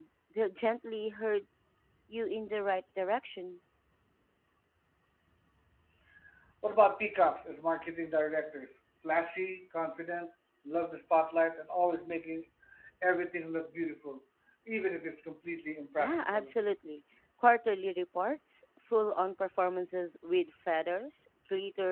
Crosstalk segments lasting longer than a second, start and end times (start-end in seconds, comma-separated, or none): none